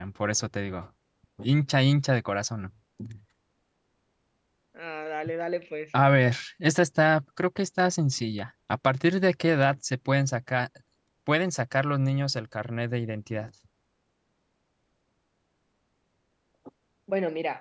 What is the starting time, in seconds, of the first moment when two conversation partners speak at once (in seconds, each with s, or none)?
none